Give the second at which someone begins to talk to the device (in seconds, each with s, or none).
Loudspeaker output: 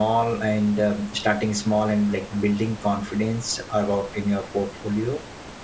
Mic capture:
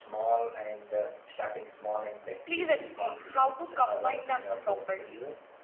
2.4 s